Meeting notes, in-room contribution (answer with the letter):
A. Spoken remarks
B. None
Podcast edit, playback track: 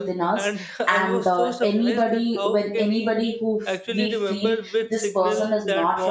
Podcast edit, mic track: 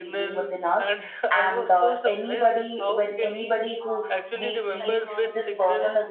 A